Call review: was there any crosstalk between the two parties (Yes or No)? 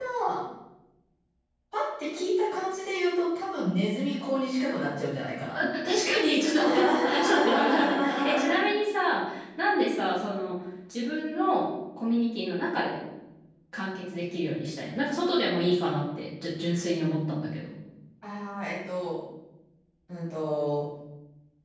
Yes